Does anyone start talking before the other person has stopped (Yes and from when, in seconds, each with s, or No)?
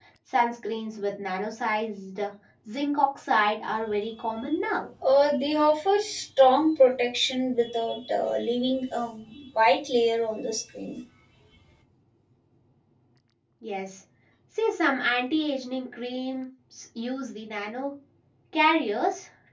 No